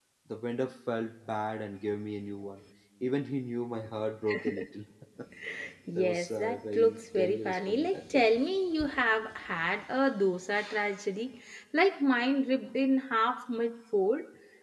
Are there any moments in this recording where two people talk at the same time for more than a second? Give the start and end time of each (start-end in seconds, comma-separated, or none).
6.0-8.2